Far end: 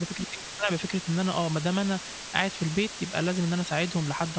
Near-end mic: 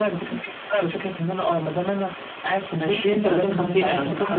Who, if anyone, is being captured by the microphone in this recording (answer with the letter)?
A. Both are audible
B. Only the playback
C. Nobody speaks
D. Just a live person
A